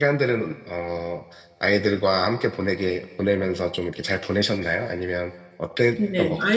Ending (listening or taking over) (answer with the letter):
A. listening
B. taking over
B